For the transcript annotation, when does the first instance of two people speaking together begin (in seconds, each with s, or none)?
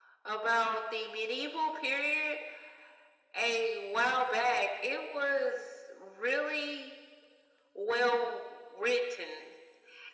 none